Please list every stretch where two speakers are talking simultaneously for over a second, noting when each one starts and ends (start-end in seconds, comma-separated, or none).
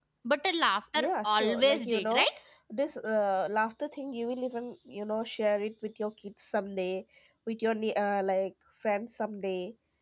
0.9-2.3